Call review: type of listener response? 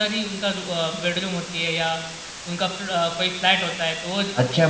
taking over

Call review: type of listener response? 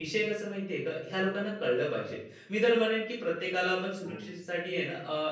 listening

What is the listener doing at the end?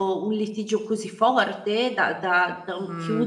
taking over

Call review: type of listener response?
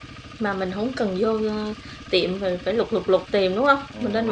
taking over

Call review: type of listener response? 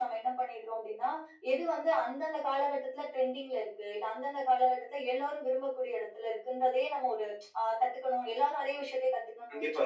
taking over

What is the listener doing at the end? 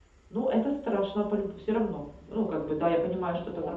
listening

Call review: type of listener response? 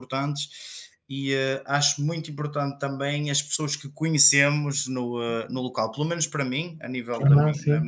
listening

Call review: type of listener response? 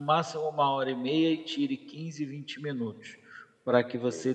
listening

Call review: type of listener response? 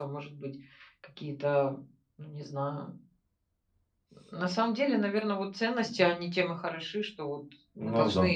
listening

